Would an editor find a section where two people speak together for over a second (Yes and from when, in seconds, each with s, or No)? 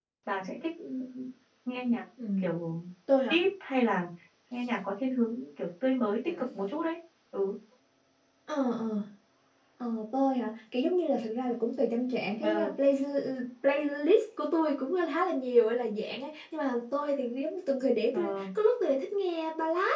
No